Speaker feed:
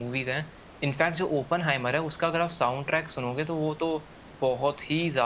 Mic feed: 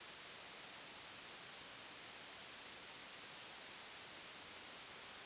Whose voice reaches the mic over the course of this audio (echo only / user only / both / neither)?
neither